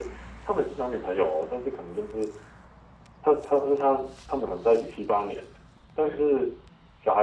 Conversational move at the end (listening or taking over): listening